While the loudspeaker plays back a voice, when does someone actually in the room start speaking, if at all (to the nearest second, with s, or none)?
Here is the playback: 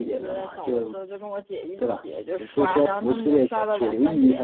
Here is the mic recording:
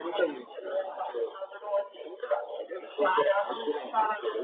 none